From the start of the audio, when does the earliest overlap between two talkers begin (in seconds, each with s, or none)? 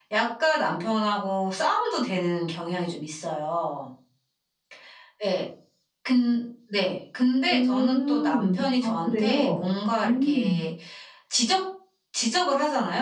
7.5 s